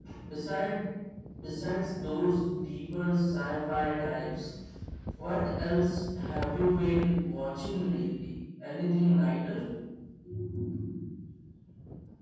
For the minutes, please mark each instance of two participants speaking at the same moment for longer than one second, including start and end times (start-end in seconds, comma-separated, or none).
none